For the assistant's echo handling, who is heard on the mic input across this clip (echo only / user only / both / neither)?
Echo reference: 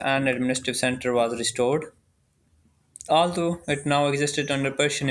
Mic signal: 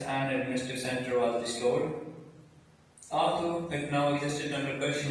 echo only